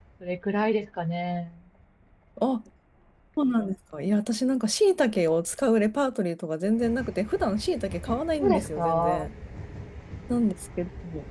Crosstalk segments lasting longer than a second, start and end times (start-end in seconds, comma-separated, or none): 8.1-9.3